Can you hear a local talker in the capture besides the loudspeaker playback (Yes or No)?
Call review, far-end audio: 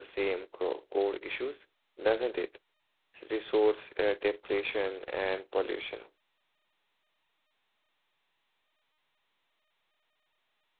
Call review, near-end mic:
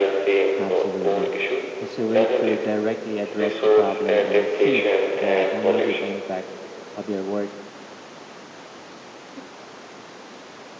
Yes